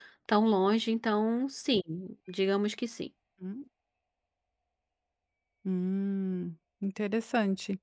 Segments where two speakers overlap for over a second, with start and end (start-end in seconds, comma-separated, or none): none